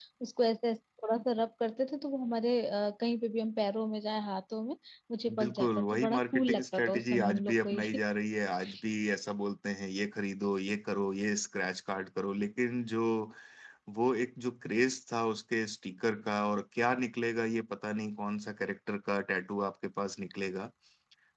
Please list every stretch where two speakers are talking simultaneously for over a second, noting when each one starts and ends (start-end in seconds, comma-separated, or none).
5.4-8.0